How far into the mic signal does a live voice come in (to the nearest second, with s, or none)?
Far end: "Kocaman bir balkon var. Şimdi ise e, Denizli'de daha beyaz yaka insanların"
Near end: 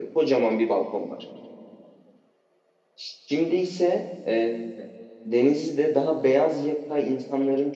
none